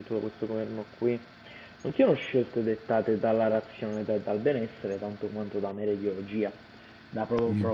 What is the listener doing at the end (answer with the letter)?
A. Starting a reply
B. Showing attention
B